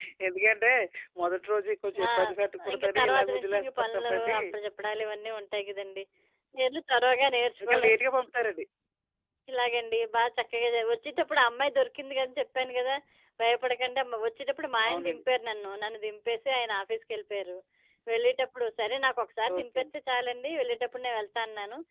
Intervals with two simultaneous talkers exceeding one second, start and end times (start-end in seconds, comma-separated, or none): 2.7-4.4